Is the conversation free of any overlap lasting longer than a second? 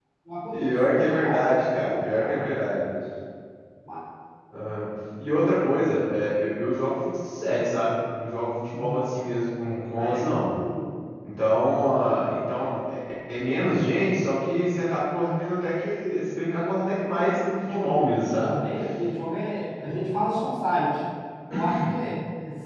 No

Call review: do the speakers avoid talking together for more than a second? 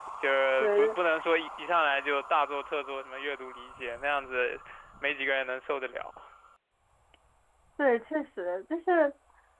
Yes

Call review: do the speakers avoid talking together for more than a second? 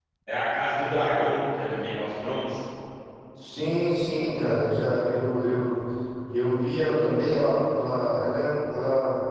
Yes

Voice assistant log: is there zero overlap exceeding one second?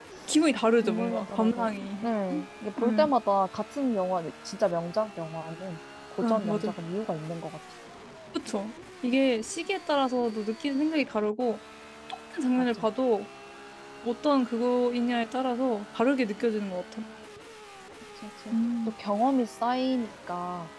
No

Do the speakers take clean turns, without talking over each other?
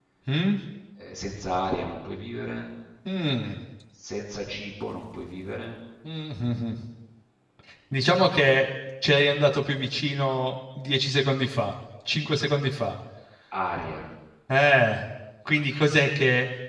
Yes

